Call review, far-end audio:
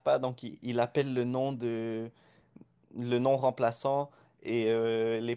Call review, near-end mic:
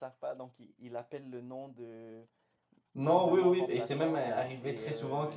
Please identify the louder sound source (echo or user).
user